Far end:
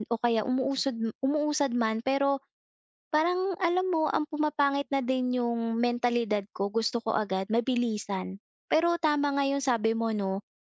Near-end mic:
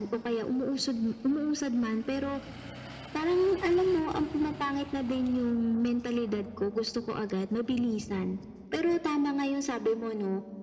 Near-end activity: none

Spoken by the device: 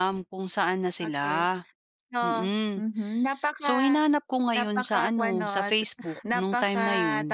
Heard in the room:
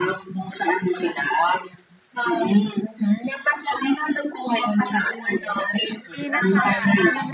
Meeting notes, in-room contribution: present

